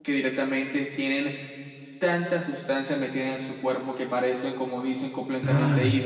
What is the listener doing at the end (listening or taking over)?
taking over